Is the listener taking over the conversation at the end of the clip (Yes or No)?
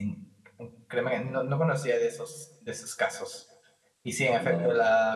No